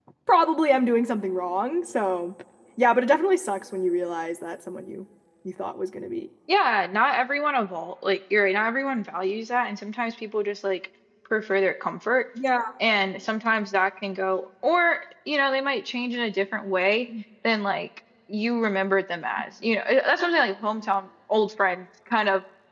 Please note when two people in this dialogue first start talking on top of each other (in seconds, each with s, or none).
none